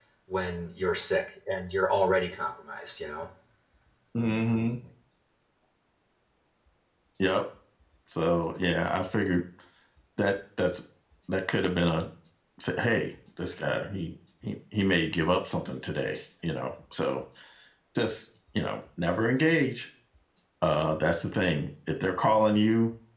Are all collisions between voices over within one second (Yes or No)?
Yes